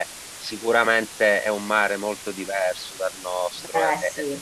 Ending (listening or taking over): listening